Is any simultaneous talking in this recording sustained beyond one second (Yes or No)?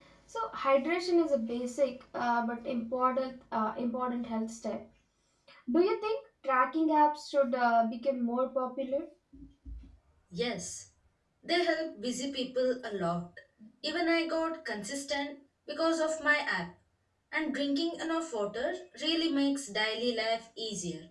No